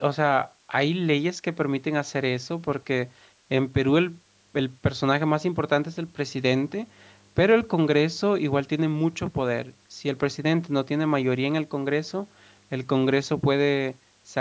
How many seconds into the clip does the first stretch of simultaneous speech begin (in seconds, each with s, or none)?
none